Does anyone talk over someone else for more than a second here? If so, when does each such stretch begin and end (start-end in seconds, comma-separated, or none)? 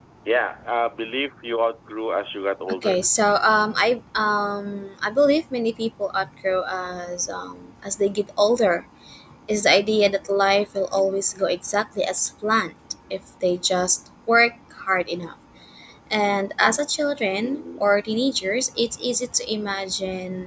none